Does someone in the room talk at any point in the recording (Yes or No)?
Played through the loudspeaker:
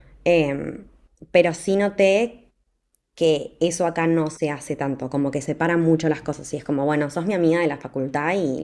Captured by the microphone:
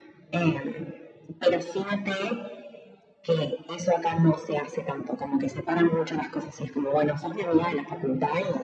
No